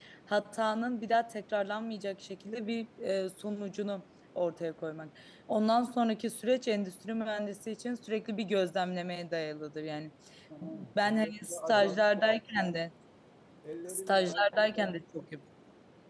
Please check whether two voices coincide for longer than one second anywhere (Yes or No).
Yes